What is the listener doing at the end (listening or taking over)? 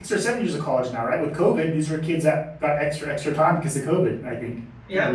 taking over